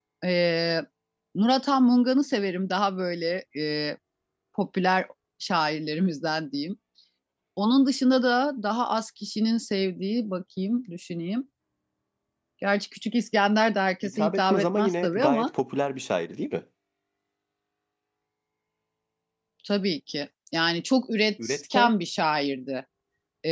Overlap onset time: 14.0 s

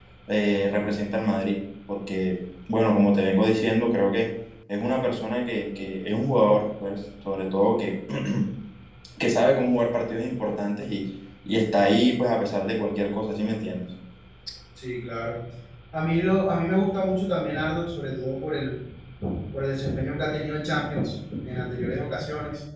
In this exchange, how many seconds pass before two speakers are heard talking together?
none

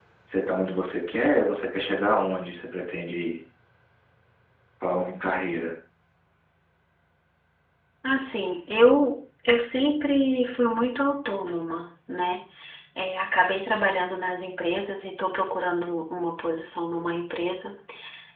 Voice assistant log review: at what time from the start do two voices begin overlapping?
none

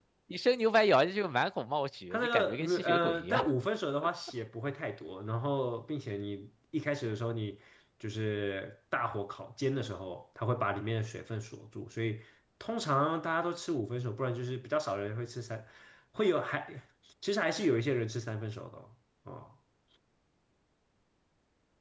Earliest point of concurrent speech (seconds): 2.1 s

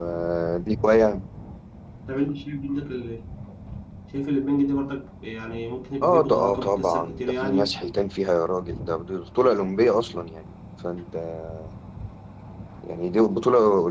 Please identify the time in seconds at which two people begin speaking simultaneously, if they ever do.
6.0 s

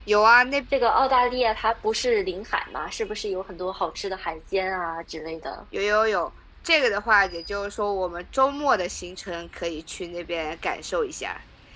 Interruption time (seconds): none

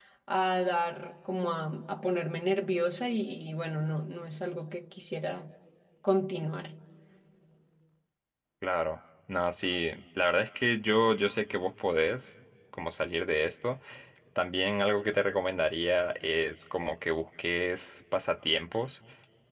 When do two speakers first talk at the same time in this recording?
none

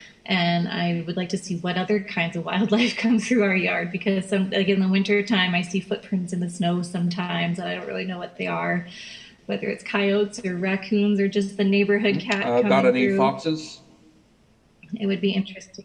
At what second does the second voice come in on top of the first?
12.1 s

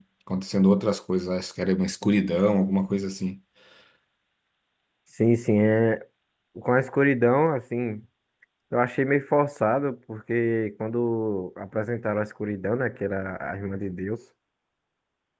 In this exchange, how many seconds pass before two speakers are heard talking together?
none

